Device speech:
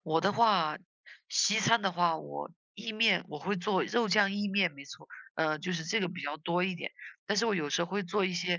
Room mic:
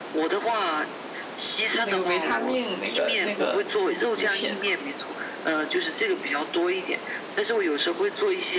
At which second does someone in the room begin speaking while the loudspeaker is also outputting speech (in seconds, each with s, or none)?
1.8 s